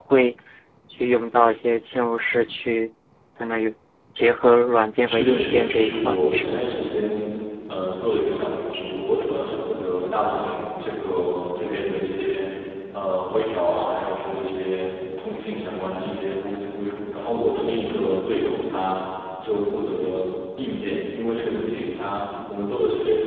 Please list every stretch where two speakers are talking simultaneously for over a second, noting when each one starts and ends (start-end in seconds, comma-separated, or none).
5.1-6.6